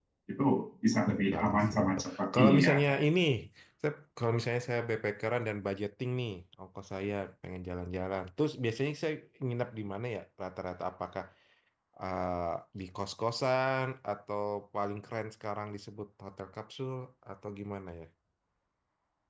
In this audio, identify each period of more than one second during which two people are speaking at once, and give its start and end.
1.2-2.8

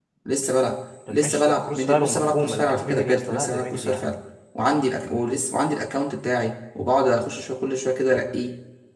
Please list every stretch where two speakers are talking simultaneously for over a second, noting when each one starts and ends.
1.1-4.1

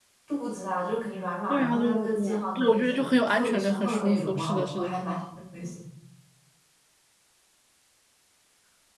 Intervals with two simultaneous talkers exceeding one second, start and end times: 1.5-5.0

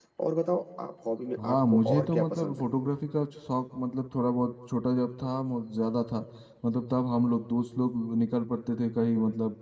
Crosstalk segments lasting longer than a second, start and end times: 1.4-2.6

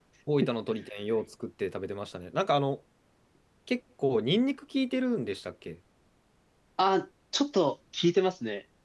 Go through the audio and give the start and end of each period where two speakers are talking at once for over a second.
none

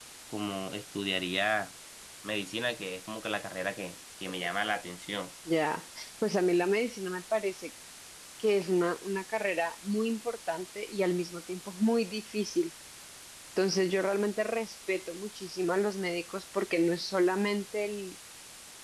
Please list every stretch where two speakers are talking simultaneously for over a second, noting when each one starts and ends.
none

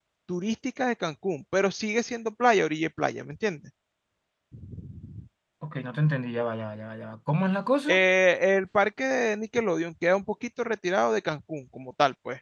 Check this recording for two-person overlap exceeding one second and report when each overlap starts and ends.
none

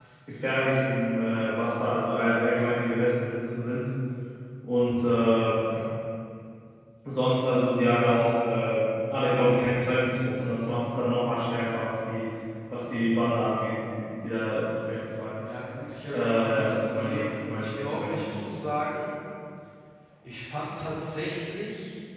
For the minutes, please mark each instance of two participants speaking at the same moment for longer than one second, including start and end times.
16.1-18.6

